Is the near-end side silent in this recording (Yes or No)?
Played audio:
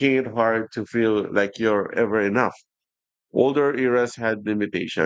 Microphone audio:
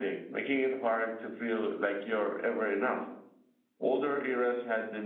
Yes